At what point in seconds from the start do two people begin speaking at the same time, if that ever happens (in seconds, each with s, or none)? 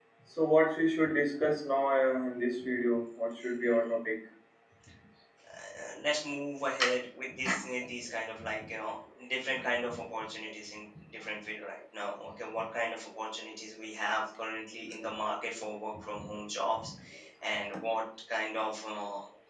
none